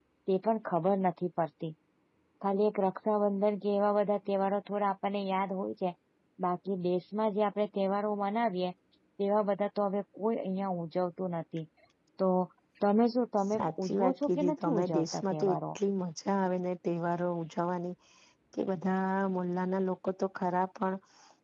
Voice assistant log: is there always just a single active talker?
No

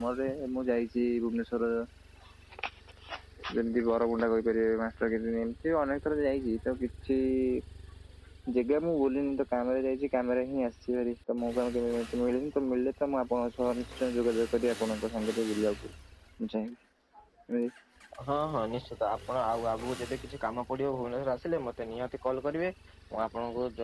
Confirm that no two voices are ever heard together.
Yes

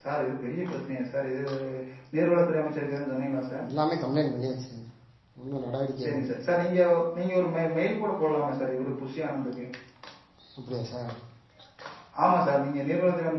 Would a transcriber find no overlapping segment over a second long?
Yes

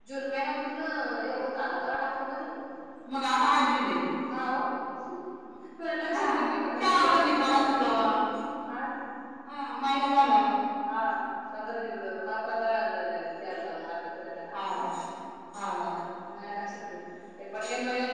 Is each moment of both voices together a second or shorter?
No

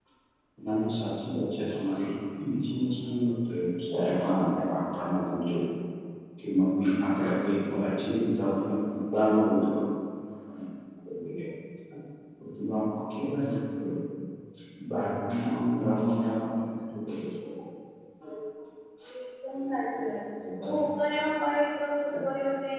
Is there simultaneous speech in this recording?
No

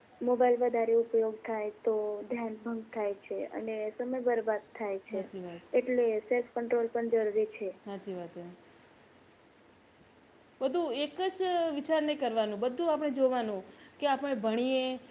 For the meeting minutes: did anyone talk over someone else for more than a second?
No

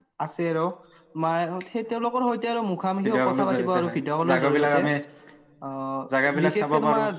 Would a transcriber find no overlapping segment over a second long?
No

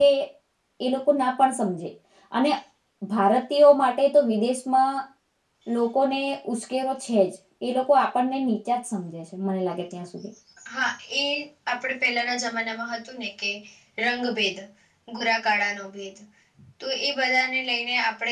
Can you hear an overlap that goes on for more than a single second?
No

